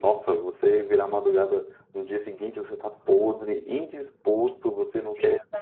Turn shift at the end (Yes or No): No